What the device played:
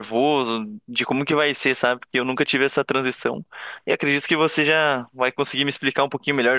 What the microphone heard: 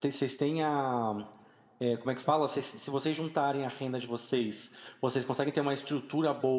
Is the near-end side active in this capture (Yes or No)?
Yes